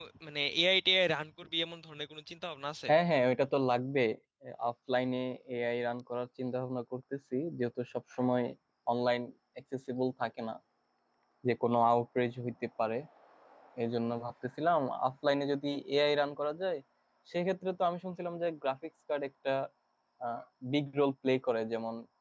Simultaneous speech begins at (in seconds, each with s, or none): none